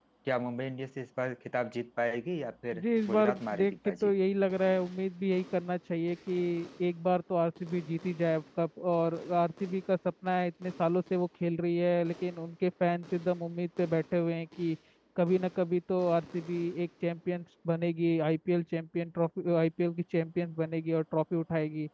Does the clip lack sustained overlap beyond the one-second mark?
No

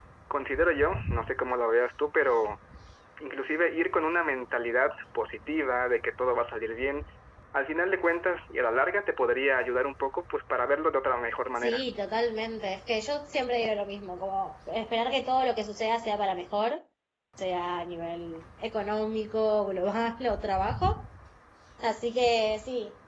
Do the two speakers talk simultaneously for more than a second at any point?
No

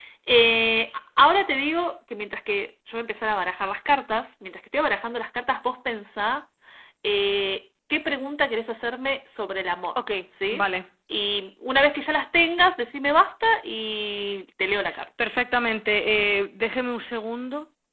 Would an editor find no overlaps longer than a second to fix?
Yes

